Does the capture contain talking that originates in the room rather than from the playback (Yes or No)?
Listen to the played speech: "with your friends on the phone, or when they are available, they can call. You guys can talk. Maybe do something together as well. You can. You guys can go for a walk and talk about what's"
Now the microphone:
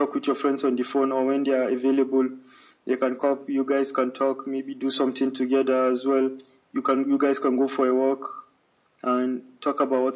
No